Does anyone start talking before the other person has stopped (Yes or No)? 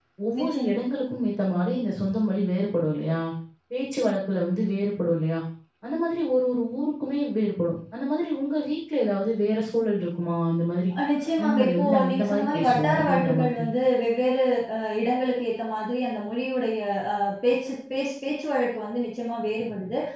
Yes